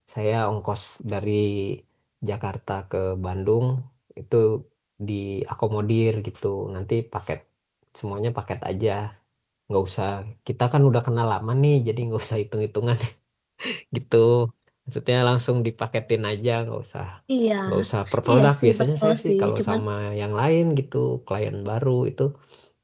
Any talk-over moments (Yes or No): Yes